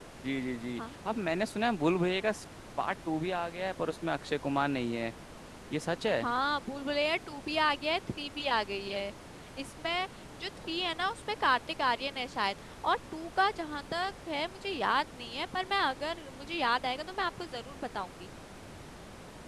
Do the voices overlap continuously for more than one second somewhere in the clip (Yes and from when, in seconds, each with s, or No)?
No